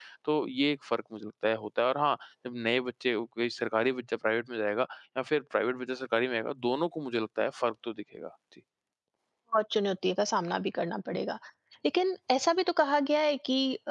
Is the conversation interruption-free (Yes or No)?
Yes